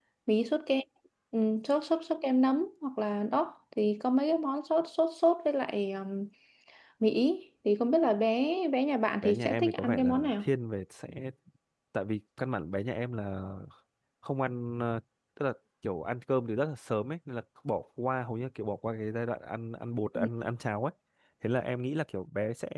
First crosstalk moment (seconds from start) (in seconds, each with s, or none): 9.2 s